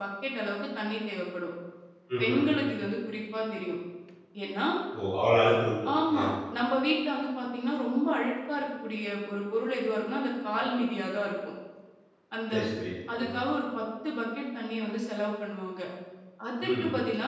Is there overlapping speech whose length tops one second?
No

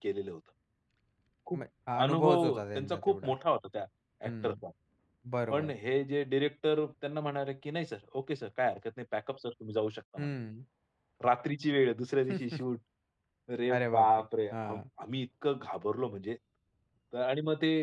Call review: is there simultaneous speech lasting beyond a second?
Yes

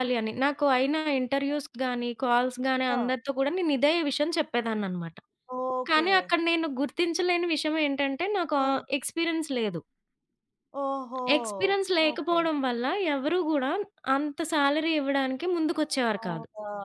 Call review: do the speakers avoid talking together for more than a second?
Yes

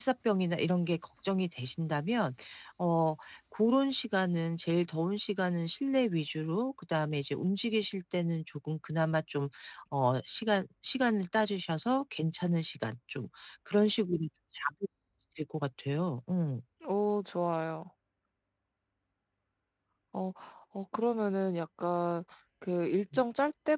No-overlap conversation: Yes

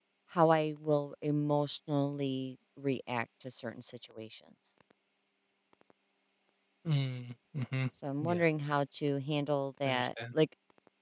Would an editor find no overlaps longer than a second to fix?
Yes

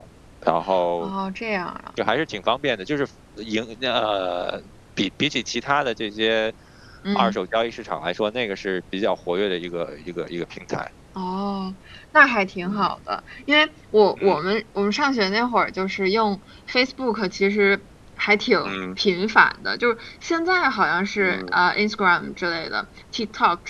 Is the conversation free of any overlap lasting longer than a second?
Yes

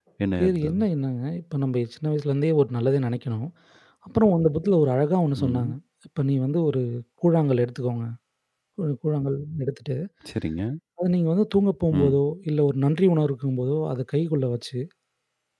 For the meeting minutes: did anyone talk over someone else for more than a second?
No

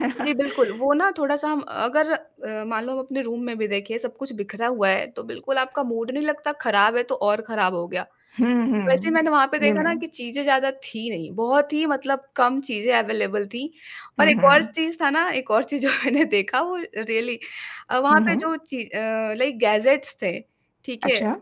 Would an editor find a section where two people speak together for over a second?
No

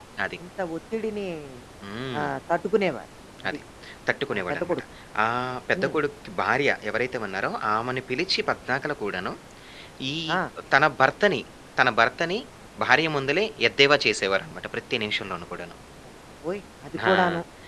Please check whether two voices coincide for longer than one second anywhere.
No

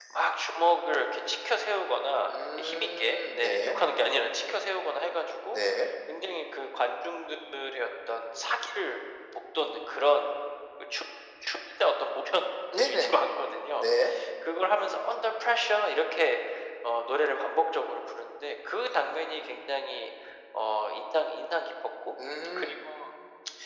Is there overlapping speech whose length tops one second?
Yes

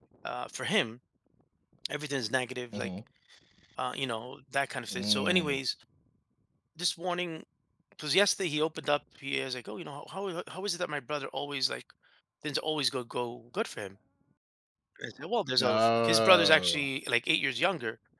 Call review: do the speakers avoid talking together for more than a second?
No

